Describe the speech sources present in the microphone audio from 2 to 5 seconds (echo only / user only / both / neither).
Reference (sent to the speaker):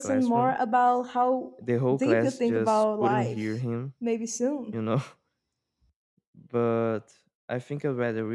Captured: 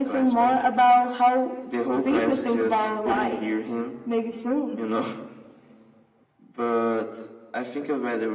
echo only